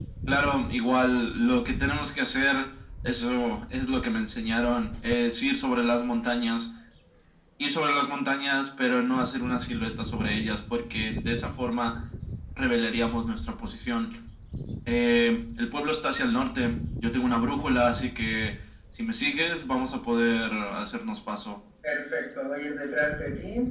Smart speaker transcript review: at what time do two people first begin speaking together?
none

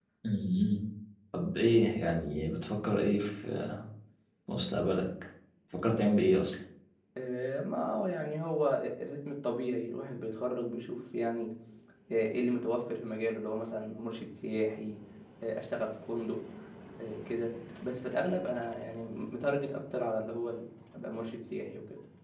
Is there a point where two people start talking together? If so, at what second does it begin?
none

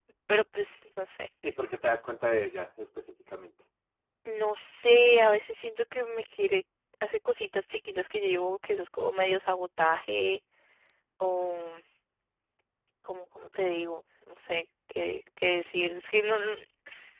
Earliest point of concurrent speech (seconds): none

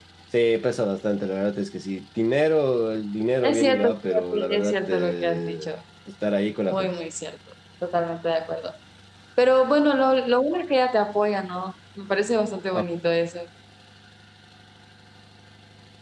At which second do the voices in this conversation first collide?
3.4 s

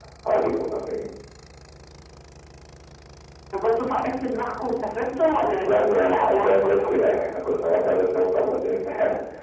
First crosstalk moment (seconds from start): 5.6 s

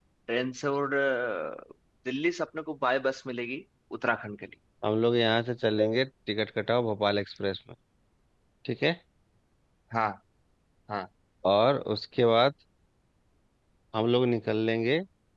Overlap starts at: none

